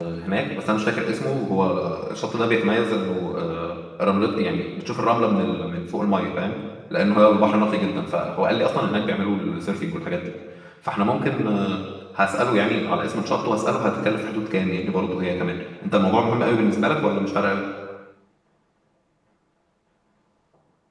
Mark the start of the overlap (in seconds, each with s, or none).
none